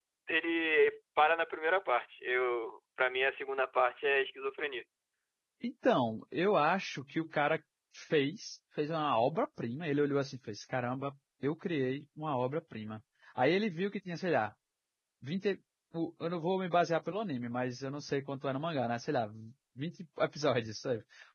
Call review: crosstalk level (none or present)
none